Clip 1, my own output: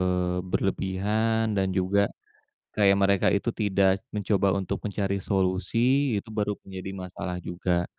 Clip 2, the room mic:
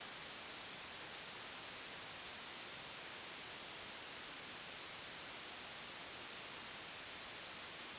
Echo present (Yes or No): No